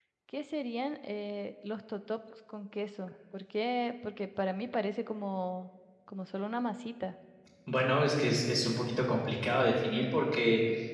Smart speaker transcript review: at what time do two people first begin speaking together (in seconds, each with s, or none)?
none